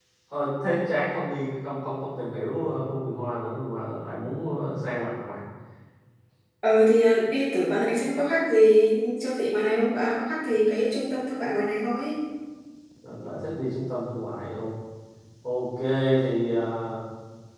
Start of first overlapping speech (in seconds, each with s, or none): none